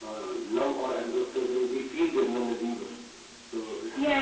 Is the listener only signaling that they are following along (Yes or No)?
No